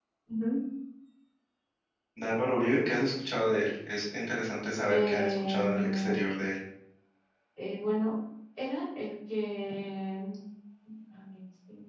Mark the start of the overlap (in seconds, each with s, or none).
4.9 s